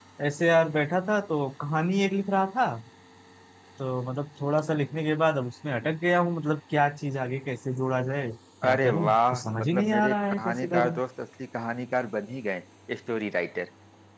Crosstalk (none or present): present